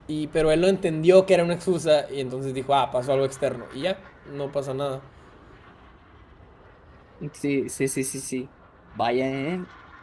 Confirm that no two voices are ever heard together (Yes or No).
Yes